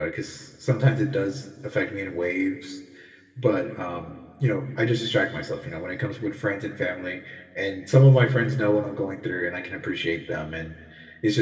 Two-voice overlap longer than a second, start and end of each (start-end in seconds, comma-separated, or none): none